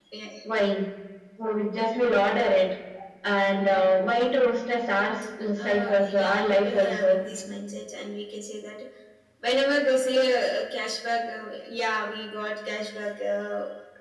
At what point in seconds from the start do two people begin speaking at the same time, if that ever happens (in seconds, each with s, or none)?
5.6 s